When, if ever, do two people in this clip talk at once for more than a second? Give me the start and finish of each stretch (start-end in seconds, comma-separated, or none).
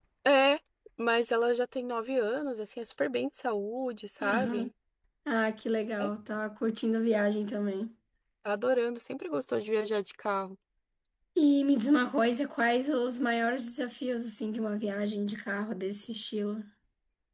none